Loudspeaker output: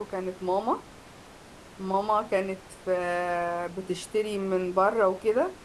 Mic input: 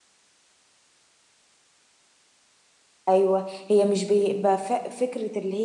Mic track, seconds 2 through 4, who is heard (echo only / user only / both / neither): user only